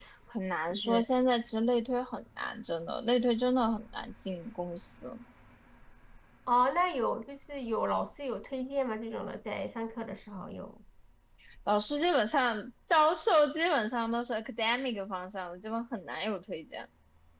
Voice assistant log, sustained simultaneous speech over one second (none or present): none